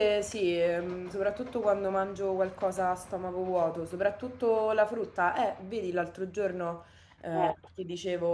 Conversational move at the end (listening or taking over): listening